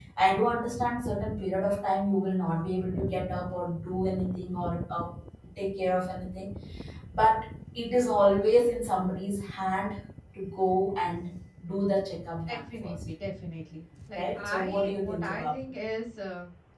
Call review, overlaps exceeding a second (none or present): present